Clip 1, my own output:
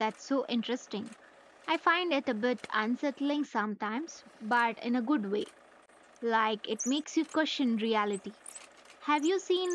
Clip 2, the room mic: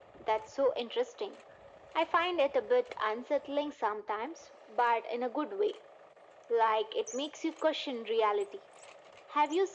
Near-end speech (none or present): none